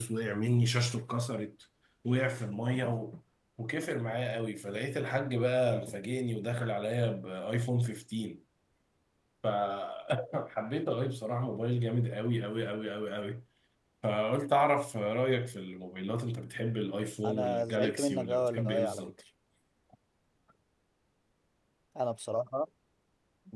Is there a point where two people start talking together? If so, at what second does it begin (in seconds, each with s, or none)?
17.2 s